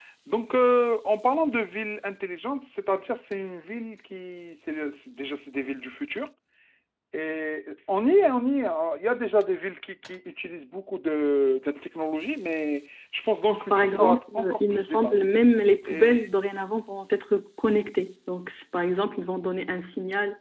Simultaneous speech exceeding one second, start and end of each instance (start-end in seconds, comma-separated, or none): 13.5-15.2